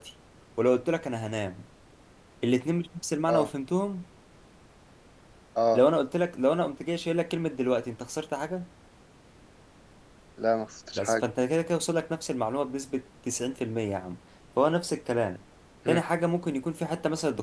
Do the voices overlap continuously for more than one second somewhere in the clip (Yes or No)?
No